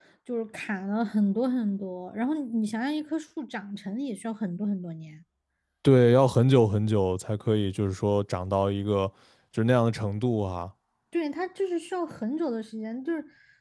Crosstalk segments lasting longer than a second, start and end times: none

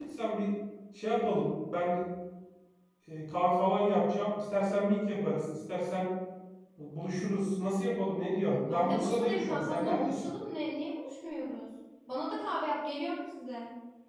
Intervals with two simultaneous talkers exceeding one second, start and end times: 8.7-10.3

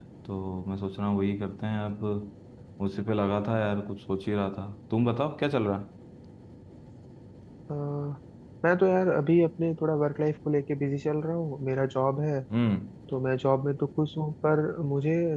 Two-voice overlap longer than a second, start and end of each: none

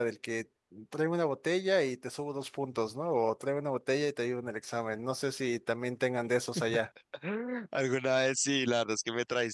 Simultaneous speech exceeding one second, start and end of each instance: none

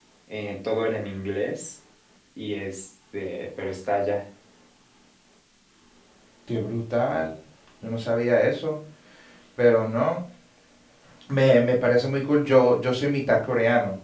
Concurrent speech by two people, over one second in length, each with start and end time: none

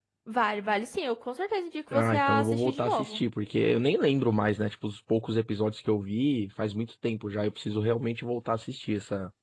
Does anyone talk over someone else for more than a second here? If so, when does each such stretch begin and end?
1.9-3.2

